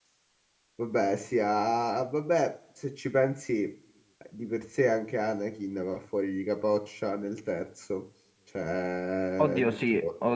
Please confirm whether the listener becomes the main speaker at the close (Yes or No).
Yes